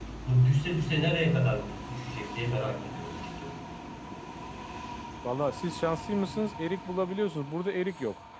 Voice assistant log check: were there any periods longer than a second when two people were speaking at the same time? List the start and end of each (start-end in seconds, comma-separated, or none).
none